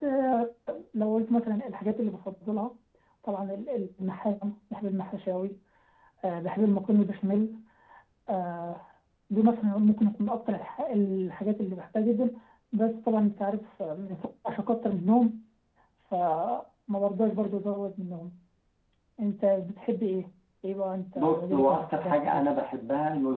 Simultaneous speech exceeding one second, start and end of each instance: 21.1-22.4

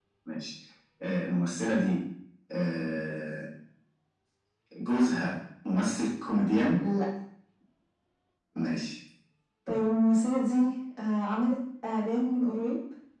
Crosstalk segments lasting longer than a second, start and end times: none

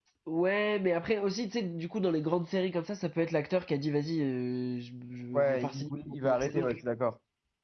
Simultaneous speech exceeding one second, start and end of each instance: 5.3-6.8

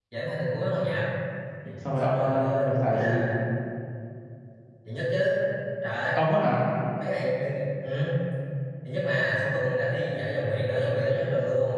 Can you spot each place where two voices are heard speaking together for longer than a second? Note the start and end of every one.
2.0-3.2

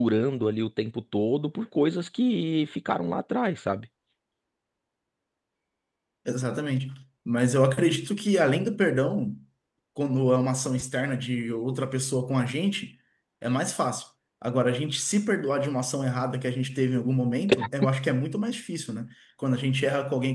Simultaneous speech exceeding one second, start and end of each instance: none

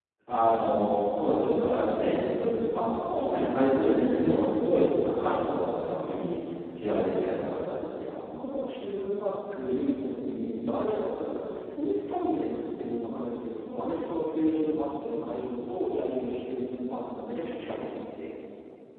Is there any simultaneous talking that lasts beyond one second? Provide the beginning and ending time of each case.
none

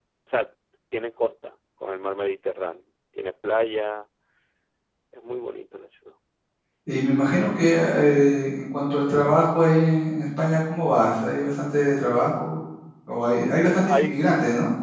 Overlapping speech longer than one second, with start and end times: none

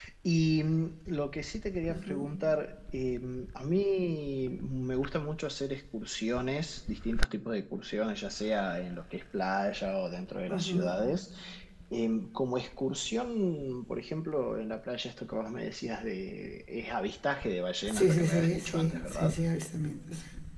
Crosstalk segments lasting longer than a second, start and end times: 17.9-19.4

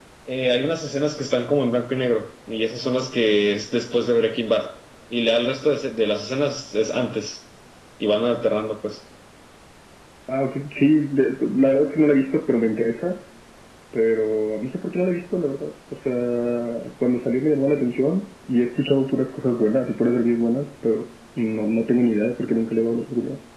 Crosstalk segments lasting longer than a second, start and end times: none

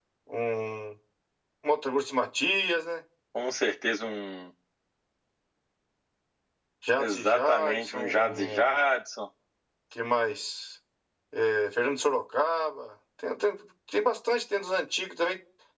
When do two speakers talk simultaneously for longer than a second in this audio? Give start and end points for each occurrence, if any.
7.0-8.8

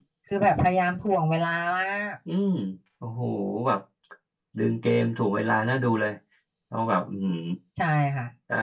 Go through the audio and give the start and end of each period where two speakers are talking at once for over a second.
none

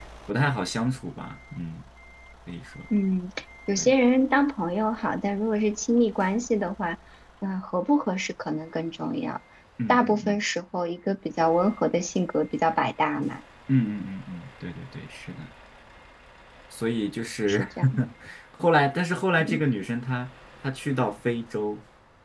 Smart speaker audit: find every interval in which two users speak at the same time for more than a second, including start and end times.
none

